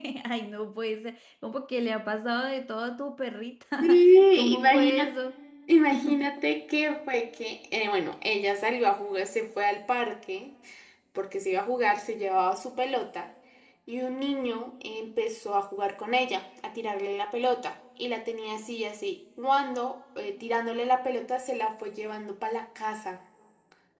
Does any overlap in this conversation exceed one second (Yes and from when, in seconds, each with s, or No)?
Yes, from 3.8 s